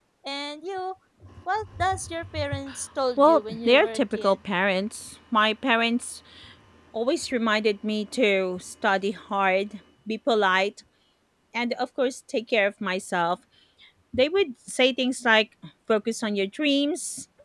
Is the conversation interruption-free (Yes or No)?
No